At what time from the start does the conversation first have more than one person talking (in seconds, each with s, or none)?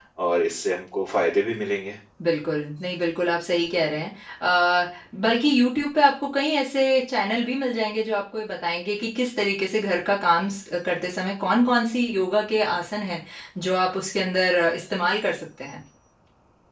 none